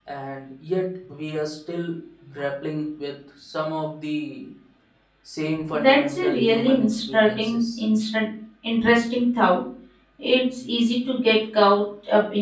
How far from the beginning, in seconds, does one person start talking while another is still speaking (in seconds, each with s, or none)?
5.7 s